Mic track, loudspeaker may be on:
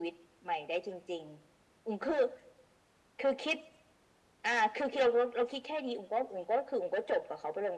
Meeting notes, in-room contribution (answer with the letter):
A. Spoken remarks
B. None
B